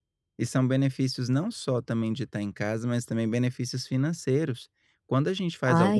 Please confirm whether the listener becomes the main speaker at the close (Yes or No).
No